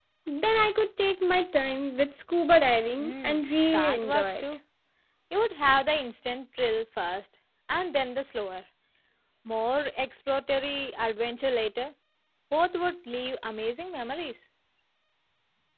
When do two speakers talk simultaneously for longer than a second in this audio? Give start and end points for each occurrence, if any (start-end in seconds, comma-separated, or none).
3.0-4.4